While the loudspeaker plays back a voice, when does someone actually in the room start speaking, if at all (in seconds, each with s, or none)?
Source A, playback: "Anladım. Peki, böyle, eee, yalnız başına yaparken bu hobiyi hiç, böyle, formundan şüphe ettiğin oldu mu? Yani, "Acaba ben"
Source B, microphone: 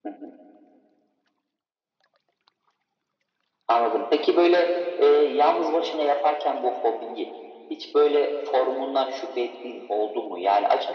none